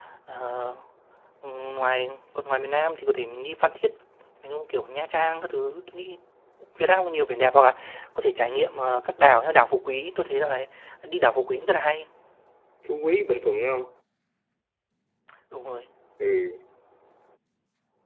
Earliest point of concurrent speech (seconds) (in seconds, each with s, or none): none